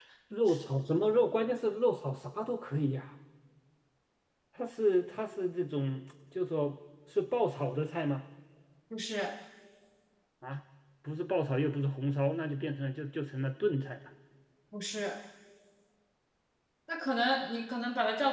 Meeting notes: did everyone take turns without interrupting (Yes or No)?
Yes